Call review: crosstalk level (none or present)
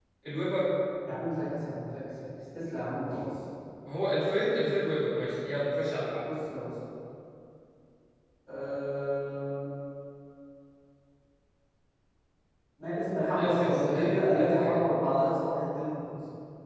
present